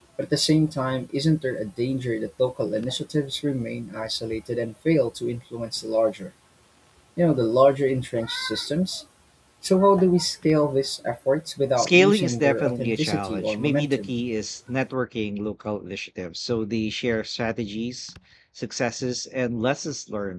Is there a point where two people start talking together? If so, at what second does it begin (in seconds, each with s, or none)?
11.8 s